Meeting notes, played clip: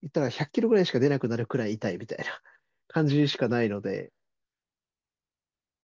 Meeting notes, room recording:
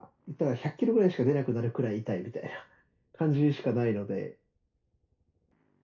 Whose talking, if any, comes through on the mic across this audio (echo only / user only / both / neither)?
echo only